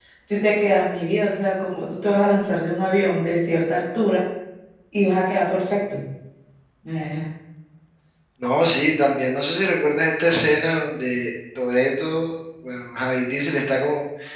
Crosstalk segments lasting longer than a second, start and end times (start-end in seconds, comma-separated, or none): none